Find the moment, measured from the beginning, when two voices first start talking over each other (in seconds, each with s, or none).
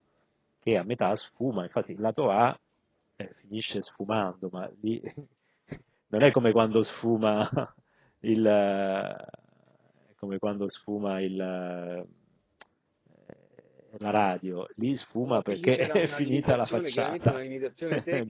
15.2 s